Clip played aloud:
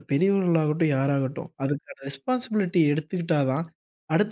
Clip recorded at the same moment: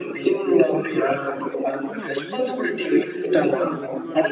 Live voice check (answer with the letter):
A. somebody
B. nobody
A